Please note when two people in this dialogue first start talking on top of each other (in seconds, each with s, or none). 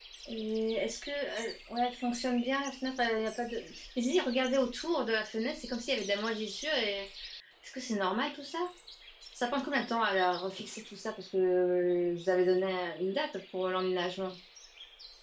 none